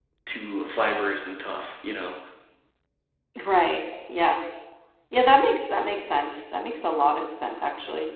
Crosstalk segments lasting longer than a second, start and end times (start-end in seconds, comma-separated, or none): none